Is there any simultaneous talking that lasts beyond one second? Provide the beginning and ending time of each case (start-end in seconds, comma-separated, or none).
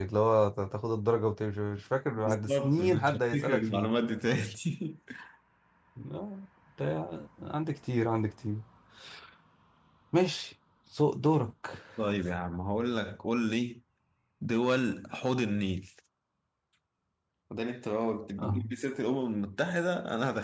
2.2-3.9